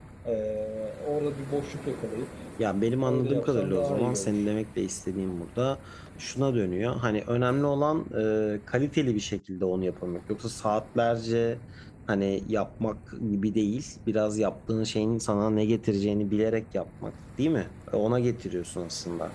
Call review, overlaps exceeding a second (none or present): present